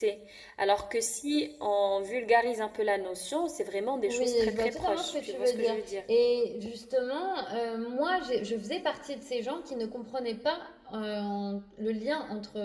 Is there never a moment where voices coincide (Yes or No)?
No